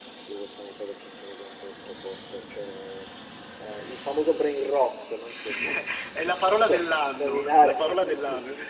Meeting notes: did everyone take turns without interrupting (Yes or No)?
No